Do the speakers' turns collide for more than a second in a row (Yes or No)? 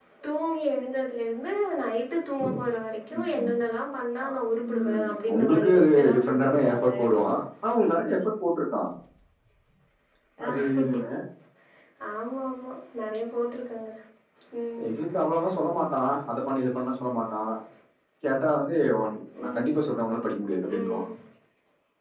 Yes